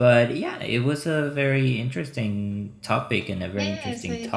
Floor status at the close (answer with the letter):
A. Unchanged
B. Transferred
B